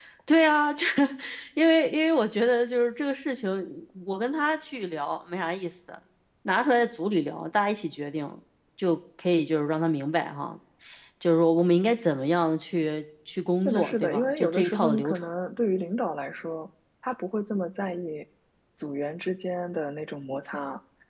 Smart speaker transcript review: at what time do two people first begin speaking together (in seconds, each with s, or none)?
13.7 s